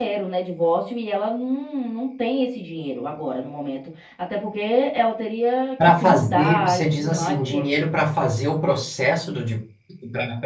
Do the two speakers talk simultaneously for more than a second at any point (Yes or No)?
Yes